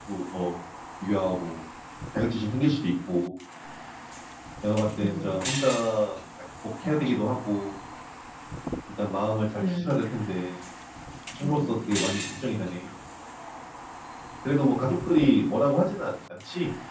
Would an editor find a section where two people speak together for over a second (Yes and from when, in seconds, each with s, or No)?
No